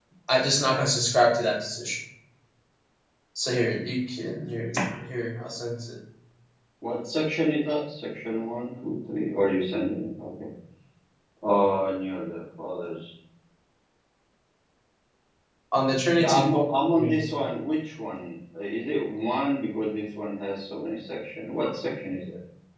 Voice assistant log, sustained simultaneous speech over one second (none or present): none